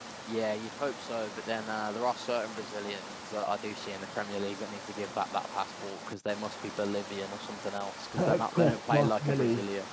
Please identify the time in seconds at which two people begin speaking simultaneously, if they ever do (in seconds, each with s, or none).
8.2 s